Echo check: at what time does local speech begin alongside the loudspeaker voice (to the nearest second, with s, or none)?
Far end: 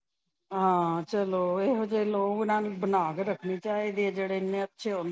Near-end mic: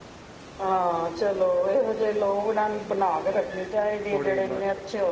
4 s